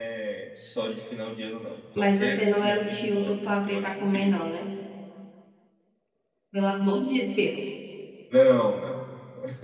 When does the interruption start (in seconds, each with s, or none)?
2.0 s